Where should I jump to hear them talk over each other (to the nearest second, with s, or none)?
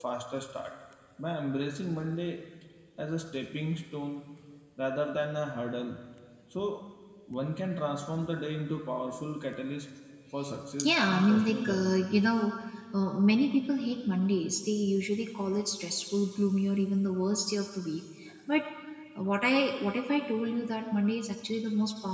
11 s